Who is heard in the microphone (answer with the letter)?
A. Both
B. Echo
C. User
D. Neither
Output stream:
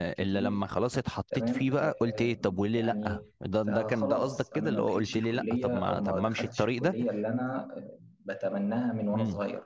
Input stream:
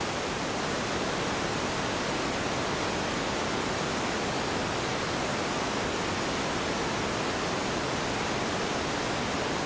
D